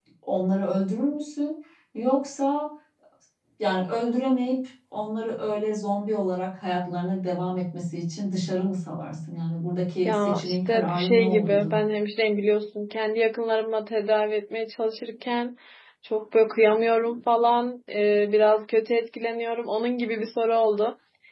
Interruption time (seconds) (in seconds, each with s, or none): 10.0 s